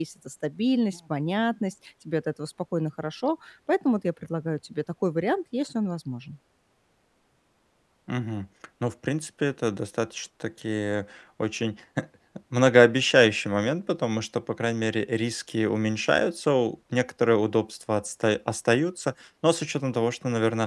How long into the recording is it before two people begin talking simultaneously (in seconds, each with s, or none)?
none